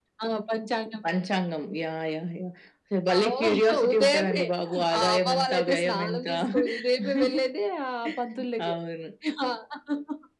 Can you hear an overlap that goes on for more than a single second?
Yes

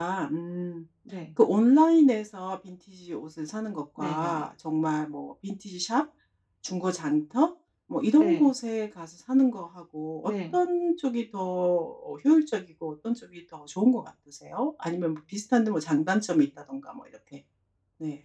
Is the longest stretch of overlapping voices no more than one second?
Yes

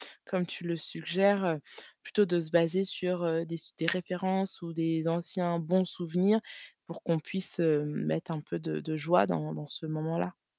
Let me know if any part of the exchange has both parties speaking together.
No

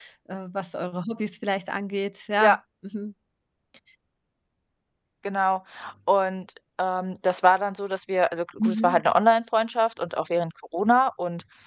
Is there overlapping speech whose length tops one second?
No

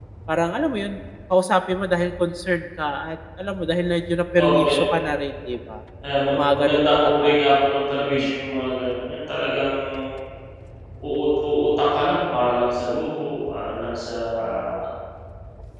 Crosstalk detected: Yes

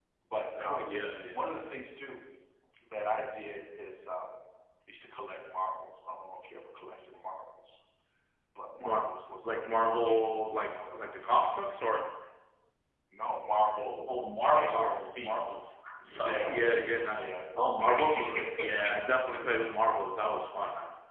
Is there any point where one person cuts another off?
Yes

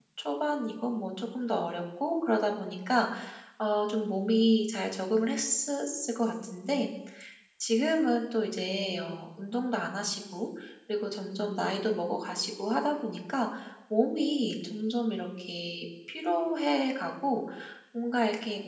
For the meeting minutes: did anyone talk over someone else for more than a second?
No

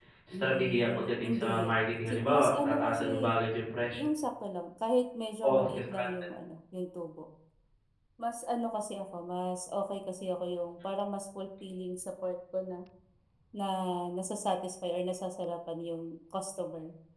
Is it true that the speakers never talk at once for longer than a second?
No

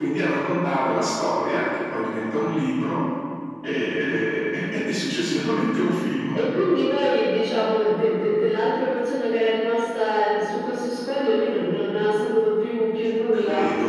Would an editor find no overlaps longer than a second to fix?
Yes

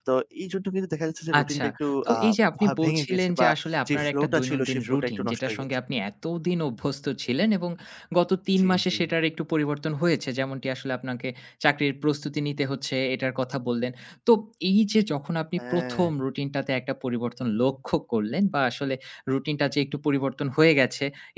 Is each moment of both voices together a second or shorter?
No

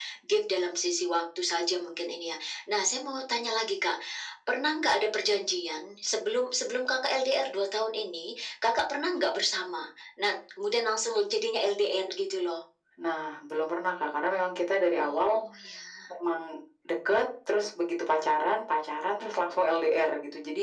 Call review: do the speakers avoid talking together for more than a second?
Yes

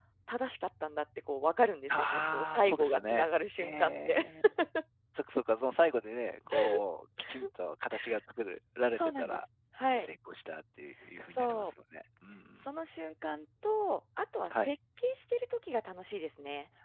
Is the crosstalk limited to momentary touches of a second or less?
No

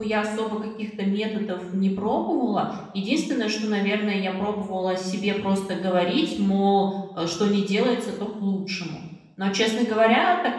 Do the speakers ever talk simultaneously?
No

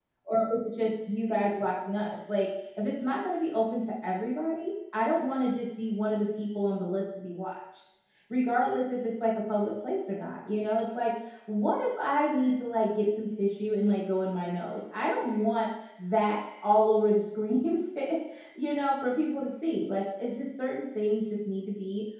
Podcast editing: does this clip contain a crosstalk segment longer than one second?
No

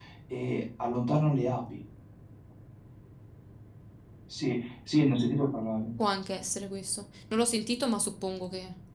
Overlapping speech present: No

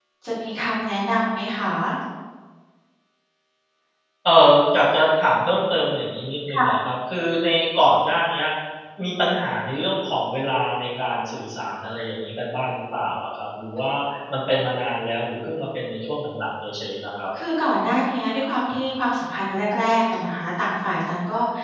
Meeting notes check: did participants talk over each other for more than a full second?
No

